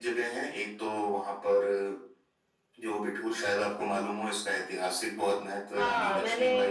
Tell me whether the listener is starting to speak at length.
Yes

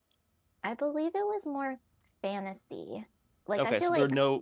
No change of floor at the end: No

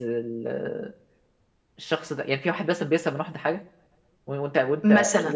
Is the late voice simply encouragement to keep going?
Yes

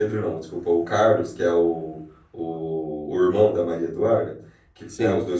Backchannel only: Yes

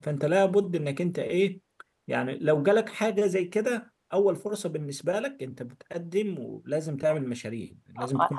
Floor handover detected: Yes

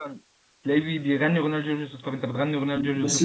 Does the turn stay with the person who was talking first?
No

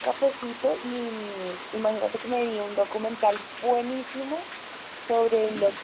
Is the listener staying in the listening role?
Yes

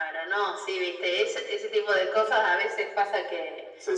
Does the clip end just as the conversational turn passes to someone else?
No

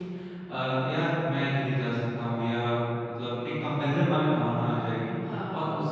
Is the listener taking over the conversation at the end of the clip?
No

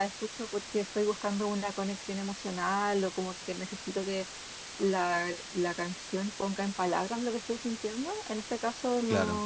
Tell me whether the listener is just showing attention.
Yes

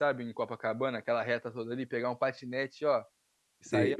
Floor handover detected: Yes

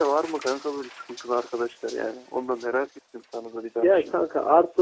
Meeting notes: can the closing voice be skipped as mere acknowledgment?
No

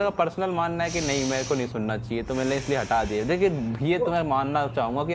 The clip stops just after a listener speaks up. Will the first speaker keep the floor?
Yes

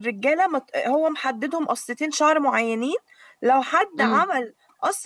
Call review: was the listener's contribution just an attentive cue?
Yes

